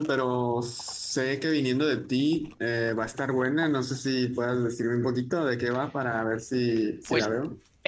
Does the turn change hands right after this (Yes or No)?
Yes